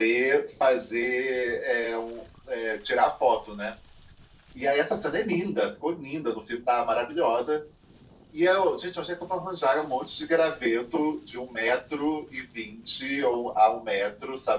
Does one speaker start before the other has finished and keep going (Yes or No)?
No